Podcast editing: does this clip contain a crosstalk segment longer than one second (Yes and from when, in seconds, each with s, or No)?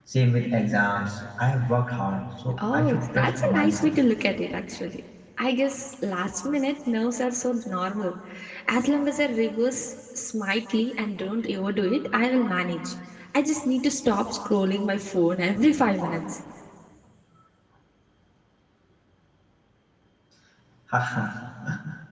Yes, from 2.5 s